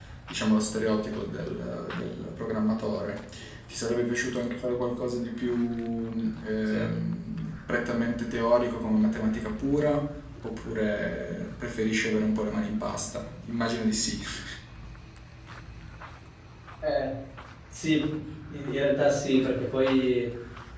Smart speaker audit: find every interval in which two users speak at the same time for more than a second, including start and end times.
none

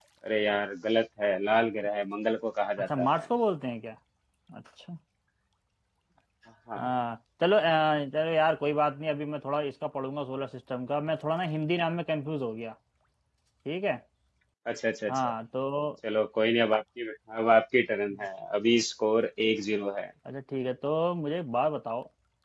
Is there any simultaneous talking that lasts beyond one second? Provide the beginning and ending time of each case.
none

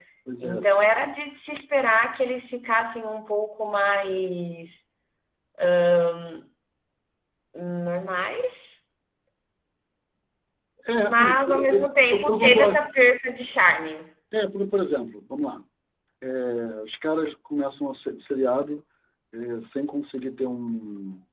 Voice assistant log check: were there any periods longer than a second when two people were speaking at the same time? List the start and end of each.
11.0-12.9

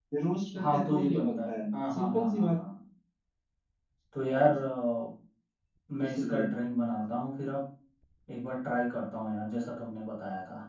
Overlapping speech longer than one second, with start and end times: 0.6-2.6

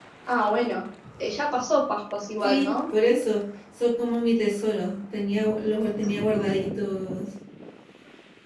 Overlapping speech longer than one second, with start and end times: none

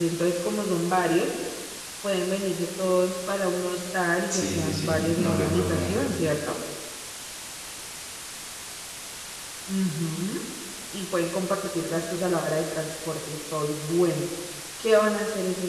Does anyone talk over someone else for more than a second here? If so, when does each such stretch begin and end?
4.3-6.1

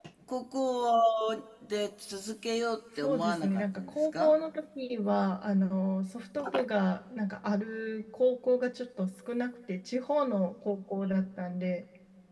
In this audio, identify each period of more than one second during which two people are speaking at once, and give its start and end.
3.0-4.3

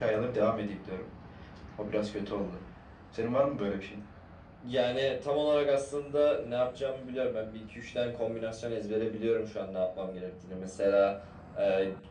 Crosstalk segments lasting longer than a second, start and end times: none

